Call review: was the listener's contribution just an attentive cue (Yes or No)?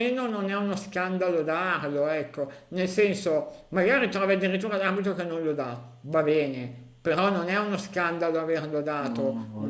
No